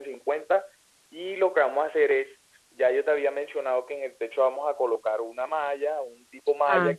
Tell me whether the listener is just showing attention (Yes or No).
Yes